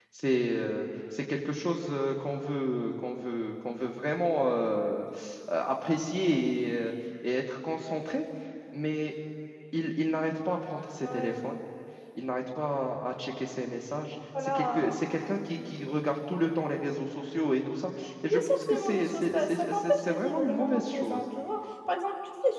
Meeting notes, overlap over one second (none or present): present